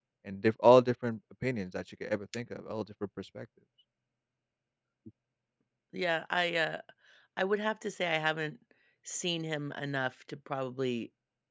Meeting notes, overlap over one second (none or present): none